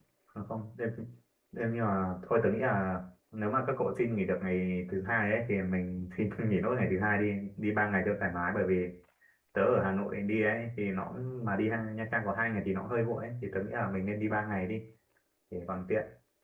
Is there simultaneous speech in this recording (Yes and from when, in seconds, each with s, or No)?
No